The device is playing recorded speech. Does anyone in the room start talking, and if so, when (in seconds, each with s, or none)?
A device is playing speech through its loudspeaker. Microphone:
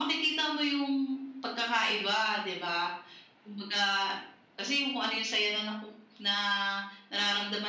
none